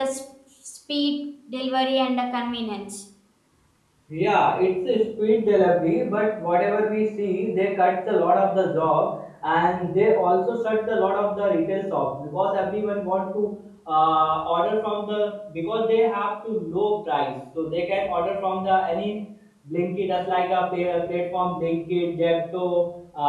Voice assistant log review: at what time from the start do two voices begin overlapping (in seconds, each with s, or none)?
none